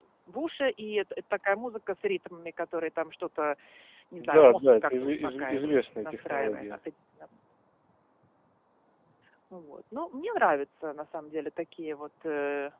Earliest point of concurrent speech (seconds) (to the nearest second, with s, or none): 4 s